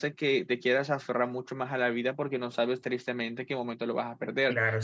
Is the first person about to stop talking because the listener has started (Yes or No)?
Yes